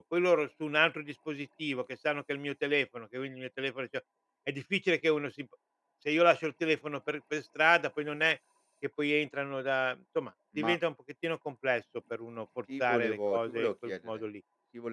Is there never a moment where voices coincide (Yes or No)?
No